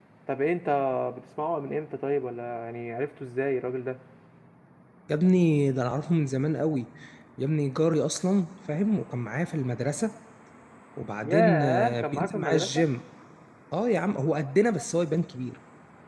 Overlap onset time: 11.2 s

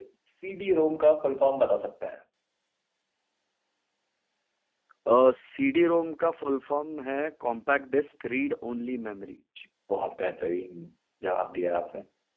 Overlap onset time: none

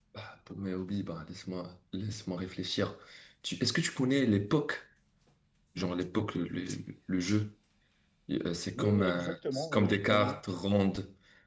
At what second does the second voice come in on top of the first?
8.7 s

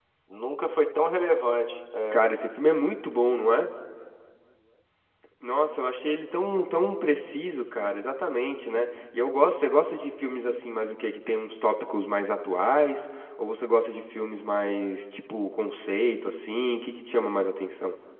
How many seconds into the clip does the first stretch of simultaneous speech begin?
none

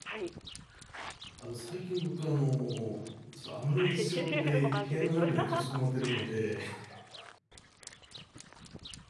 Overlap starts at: 3.8 s

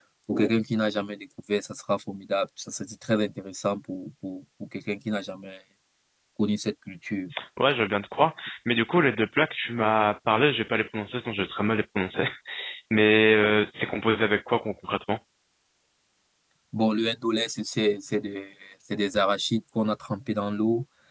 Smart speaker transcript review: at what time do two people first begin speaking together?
none

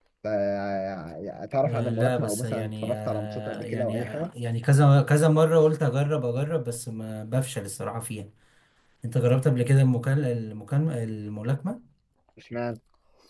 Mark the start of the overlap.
1.6 s

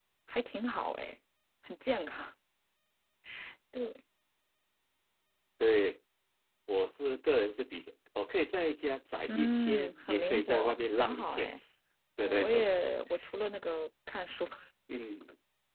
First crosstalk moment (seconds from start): 9.3 s

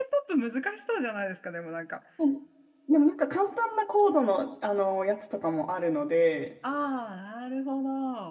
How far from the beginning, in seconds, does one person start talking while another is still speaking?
none

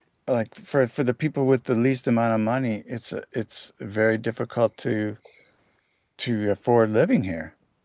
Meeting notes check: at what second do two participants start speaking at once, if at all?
none

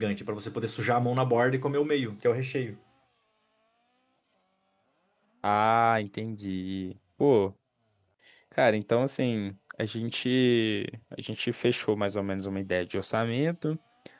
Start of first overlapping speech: none

